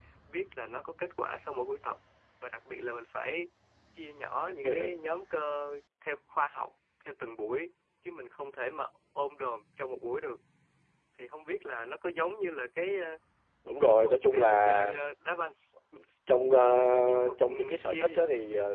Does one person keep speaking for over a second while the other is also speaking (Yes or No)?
Yes